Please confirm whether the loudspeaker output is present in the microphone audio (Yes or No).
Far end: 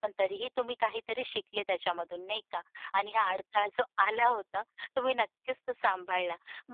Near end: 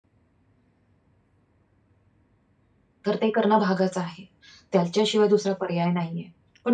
No